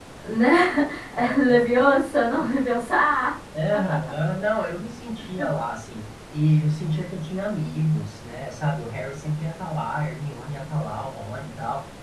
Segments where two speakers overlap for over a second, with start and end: none

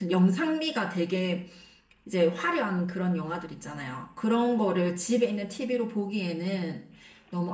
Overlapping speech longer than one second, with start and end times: none

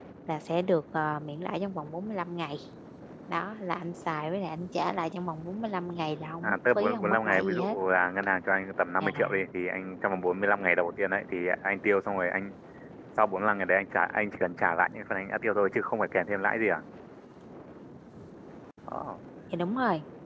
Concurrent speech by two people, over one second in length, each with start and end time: 6.4-7.8

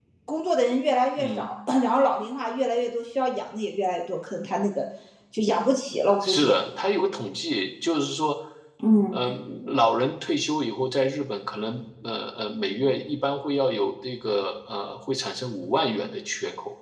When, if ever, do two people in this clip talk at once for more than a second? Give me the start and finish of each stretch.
none

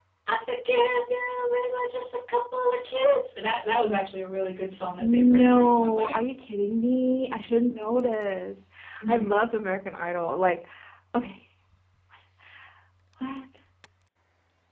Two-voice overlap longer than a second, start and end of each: 5.0-6.2

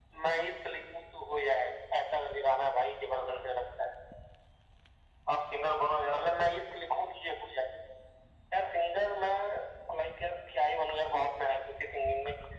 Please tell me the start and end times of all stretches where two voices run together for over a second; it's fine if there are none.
none

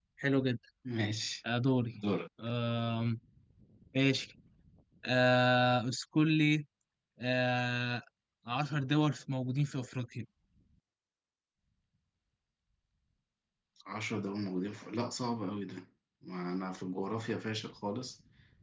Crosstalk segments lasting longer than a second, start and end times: none

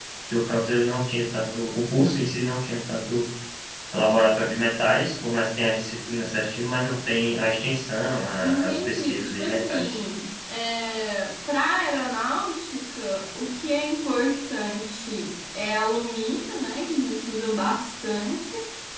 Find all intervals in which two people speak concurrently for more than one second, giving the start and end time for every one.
8.4-10.0

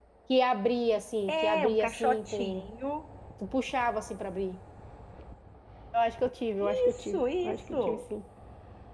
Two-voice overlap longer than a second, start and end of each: 1.3-2.7, 6.6-8.0

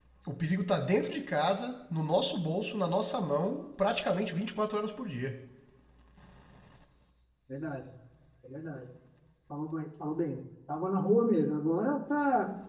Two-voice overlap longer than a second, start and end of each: none

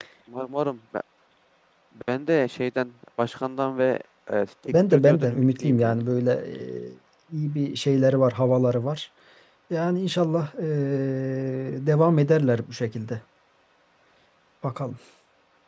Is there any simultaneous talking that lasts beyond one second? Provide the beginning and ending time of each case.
4.7-6.0

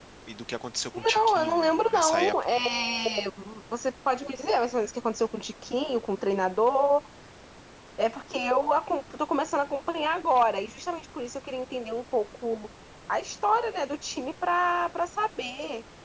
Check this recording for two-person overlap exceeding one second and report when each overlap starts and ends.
1.0-2.6

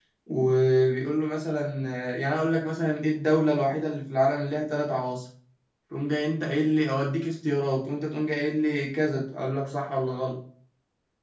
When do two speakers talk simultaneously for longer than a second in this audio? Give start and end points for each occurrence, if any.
none

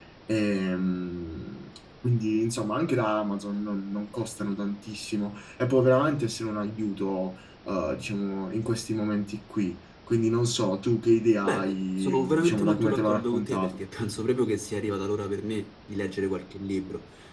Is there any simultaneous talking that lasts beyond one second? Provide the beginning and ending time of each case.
11.4-13.7

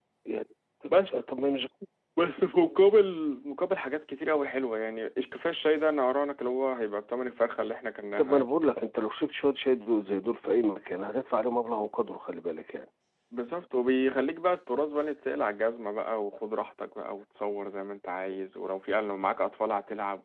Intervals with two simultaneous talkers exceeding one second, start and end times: none

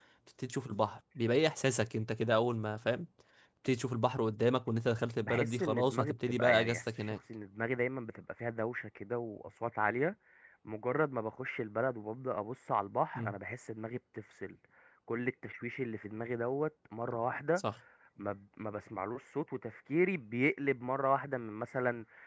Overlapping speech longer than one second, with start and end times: 5.2-7.1

